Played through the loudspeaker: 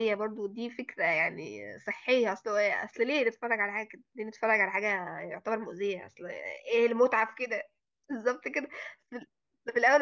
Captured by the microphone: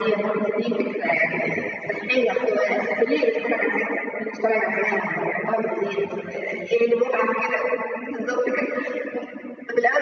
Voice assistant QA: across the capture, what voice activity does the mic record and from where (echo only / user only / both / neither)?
echo only